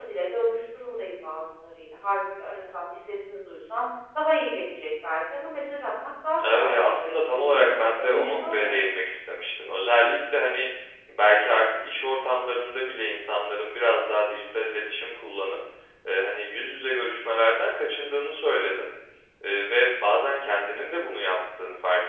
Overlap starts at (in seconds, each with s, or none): 6.4 s